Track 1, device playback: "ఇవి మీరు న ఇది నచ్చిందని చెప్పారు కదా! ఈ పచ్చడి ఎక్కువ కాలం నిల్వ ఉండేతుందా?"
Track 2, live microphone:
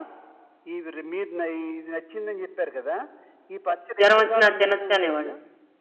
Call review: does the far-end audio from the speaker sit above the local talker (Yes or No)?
No